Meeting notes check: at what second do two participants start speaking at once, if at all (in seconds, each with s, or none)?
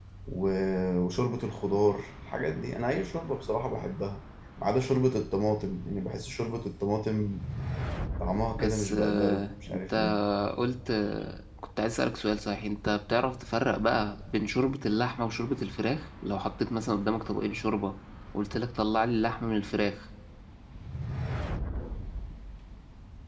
8.5 s